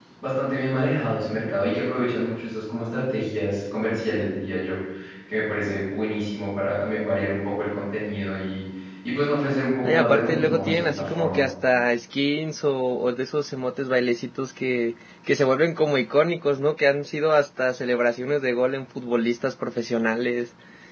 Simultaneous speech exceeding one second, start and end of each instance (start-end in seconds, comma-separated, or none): 9.8-11.4